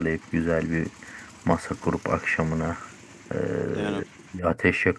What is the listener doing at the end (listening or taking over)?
listening